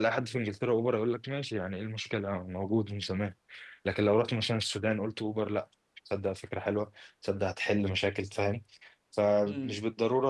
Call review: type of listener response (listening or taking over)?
listening